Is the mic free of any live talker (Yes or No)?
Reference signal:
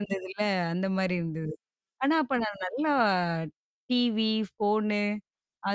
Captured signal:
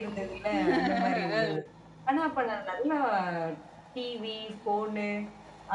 No